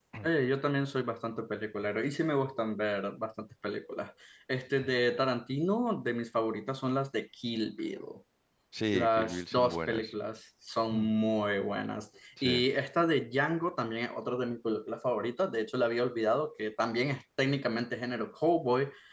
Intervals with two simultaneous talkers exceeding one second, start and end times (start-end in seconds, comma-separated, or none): 8.9-10.1